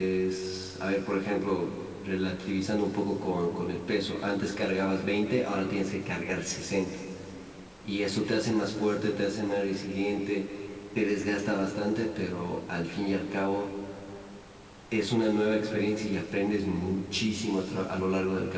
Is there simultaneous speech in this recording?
No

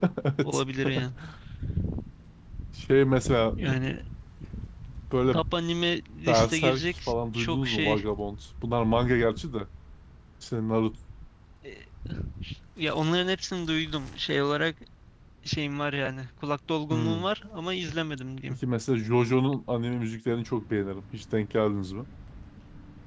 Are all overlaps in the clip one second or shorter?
No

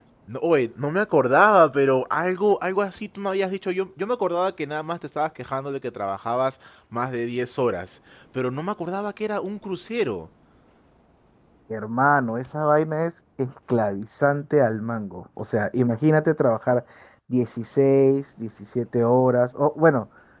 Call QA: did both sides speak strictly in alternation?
Yes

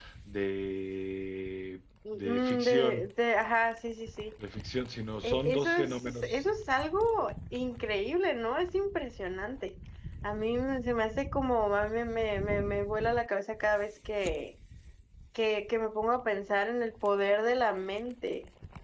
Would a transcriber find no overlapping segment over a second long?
No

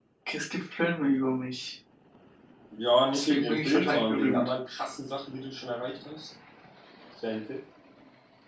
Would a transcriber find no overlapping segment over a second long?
No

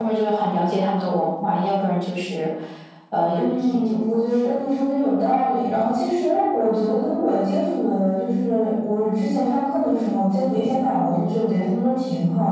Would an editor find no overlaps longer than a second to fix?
No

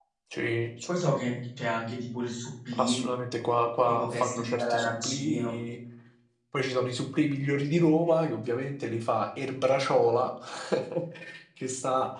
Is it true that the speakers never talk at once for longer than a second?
No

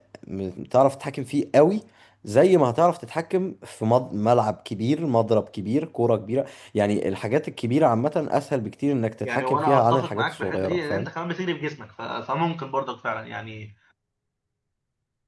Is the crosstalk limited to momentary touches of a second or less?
No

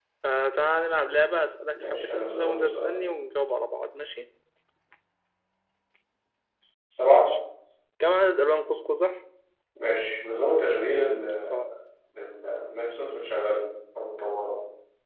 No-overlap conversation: No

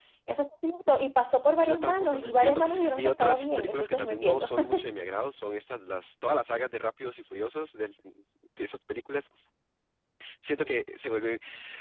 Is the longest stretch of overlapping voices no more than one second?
No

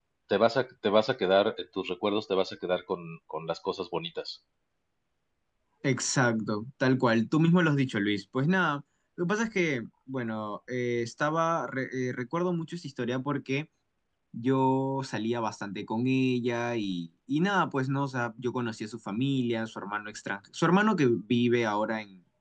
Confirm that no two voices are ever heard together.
Yes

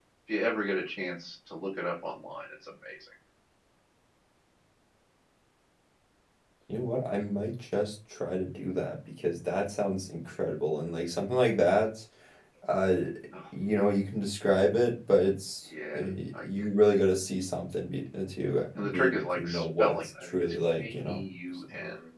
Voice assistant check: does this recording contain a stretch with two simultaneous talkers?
Yes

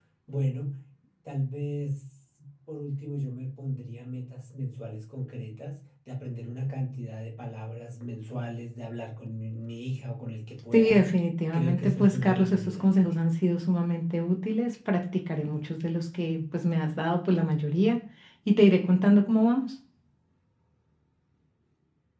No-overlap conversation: No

